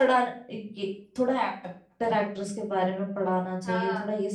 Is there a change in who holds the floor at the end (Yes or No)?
No